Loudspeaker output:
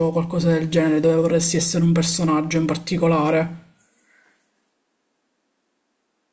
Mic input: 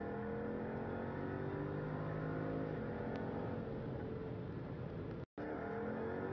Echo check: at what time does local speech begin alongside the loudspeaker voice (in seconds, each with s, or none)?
none